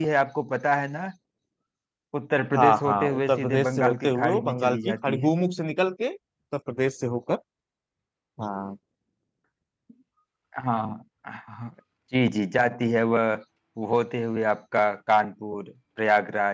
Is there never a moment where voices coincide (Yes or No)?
No